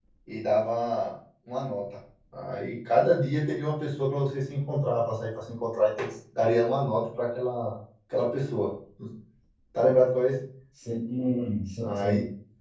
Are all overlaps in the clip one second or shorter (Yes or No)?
Yes